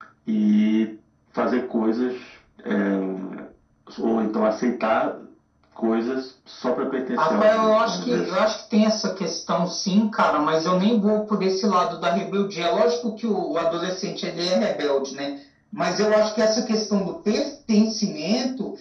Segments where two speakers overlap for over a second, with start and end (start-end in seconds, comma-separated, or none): 7.2-8.4